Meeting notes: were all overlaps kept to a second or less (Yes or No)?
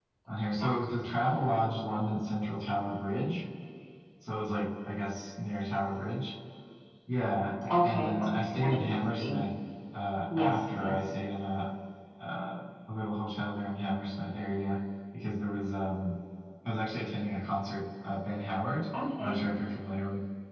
No